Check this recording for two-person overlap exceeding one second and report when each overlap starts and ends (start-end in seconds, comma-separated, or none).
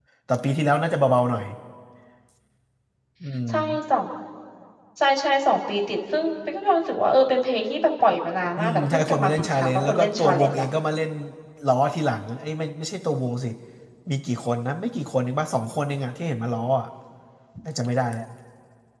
8.6-10.6